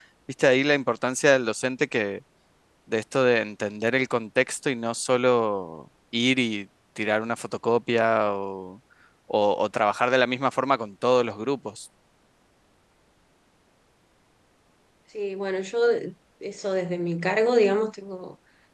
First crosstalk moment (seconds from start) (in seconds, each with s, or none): none